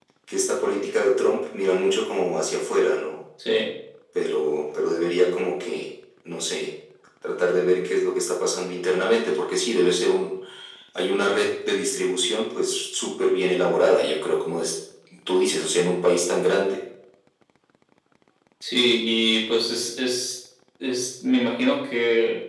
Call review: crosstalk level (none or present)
none